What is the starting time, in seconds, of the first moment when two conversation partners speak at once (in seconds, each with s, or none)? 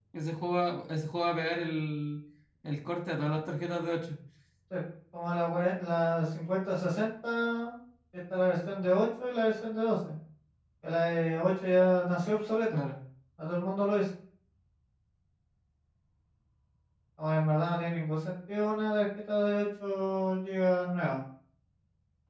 none